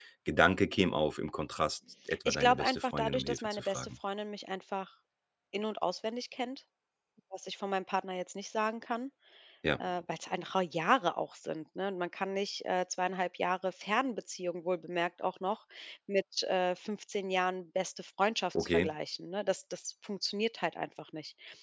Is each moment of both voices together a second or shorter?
No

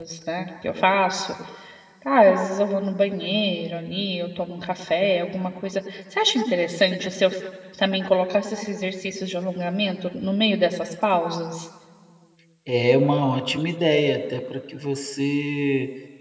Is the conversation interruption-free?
Yes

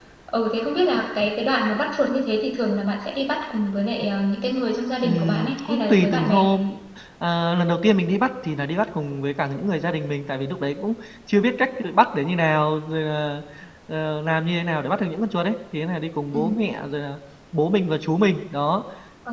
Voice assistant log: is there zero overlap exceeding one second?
No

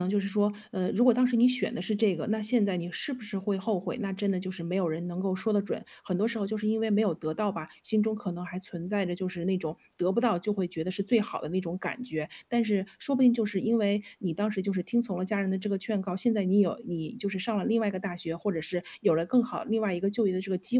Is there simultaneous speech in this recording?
No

